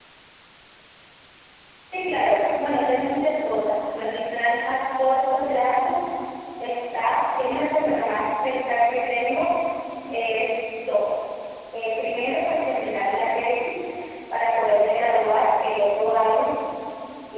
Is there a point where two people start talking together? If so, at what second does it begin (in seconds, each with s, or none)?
none